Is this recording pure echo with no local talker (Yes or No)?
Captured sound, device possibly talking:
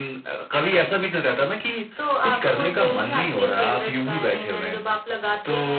Yes